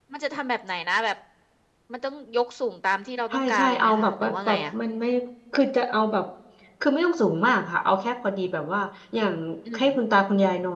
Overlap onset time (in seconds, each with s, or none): 3.3 s